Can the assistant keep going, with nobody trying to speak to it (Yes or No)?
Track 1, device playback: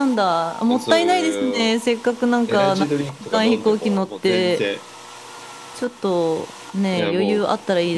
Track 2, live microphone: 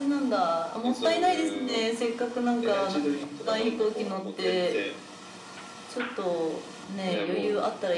Yes